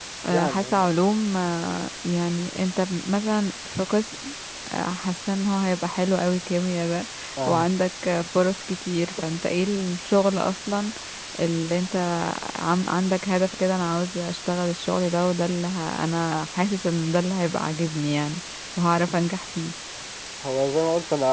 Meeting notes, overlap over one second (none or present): none